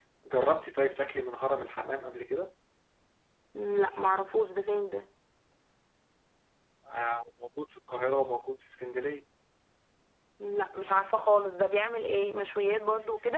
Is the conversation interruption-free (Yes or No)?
Yes